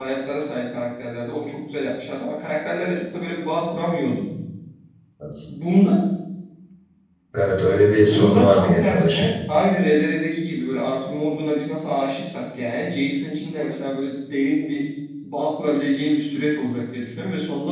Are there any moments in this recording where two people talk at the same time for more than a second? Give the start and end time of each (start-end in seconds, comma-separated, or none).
8.0-9.3